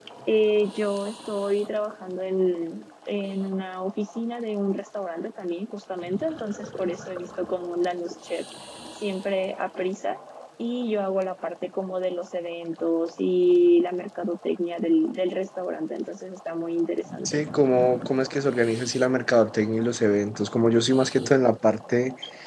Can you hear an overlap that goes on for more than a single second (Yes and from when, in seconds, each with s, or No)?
No